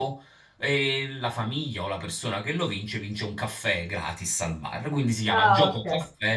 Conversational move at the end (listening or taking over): listening